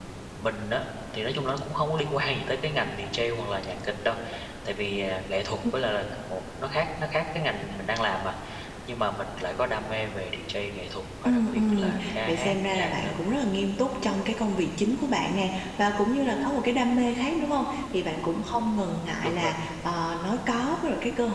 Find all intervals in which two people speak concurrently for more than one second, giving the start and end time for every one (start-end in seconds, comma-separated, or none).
11.2-13.4